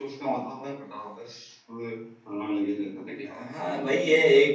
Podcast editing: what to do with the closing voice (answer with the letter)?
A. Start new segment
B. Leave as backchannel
A